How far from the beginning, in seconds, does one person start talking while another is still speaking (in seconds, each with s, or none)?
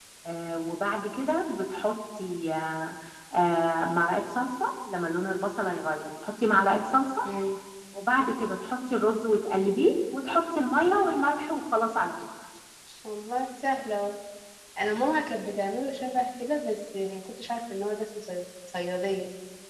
none